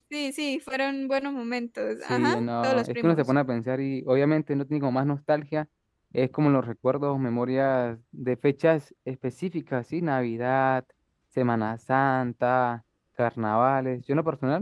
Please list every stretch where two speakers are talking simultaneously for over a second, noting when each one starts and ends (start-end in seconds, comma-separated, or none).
2.1-3.3